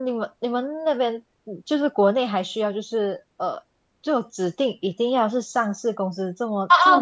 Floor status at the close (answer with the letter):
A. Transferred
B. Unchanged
A